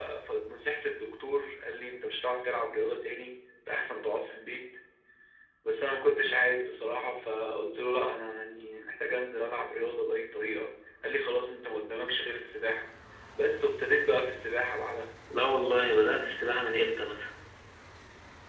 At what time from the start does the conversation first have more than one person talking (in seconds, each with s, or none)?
none